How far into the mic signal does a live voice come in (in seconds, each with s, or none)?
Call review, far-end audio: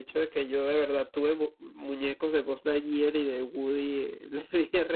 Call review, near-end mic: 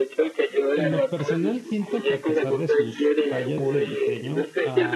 0.7 s